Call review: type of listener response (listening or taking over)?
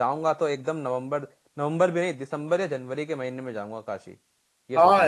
taking over